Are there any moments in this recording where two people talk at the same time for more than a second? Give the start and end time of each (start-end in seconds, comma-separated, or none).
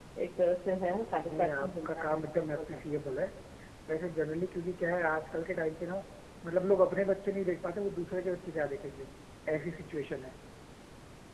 1.2-2.8